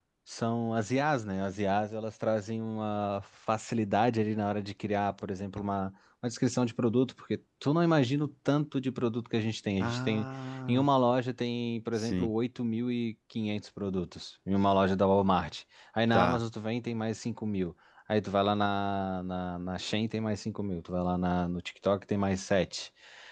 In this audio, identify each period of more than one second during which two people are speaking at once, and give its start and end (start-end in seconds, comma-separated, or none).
none